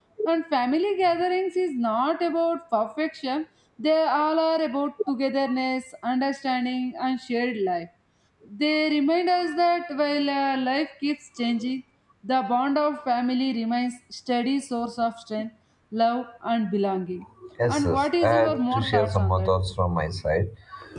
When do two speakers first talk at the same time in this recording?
18 s

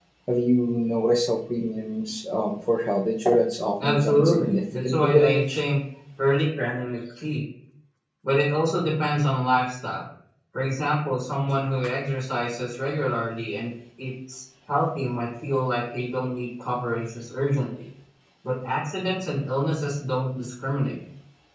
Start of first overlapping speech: 4 s

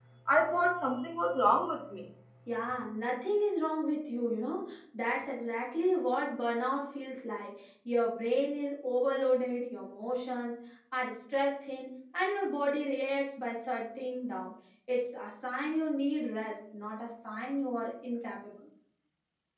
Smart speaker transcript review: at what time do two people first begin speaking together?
none

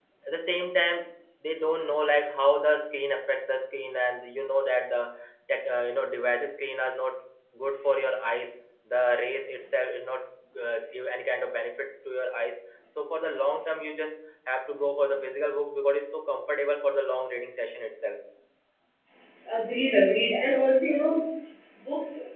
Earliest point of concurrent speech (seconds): none

